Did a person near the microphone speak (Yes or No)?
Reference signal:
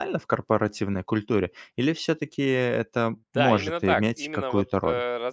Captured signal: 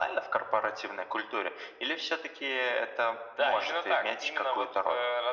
No